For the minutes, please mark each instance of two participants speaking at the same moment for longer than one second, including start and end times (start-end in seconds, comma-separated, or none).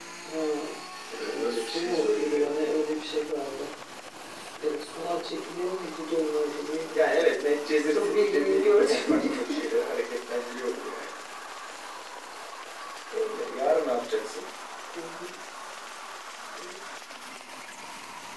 1.3-2.5, 7.9-9.3